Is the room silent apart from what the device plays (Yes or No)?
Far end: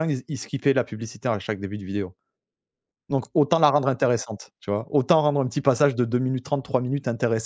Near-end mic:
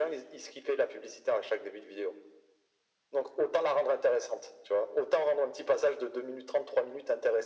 Yes